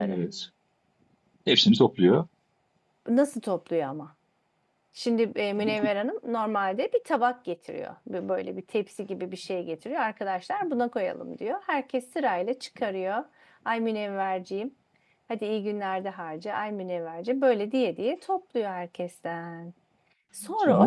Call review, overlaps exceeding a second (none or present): none